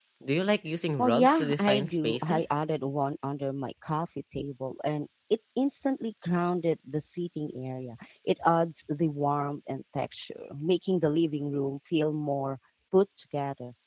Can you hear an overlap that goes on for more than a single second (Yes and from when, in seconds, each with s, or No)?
Yes, from 1.0 s